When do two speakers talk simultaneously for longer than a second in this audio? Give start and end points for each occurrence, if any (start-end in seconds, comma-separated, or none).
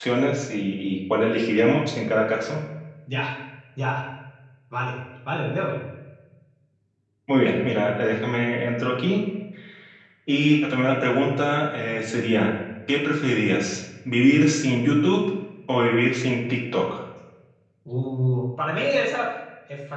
none